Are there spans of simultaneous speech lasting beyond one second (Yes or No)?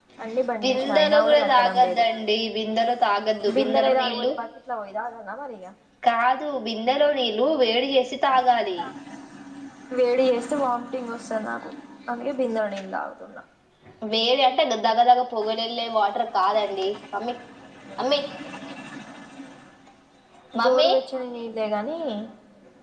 Yes